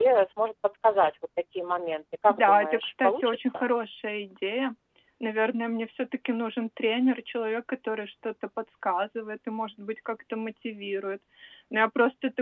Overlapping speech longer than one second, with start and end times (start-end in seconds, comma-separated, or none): 2.3-3.7